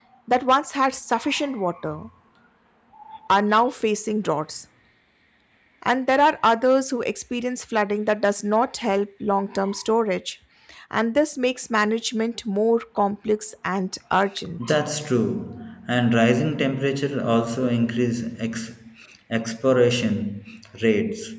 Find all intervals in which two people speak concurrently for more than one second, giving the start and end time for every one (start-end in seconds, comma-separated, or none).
none